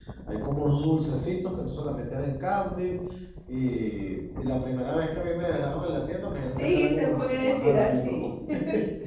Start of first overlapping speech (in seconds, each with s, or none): 6.6 s